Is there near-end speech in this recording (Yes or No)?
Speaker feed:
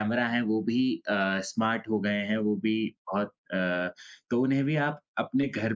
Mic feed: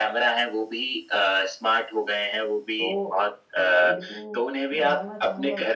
Yes